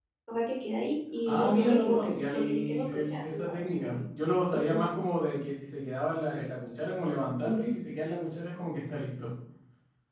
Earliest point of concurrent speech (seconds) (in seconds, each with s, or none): 1.2 s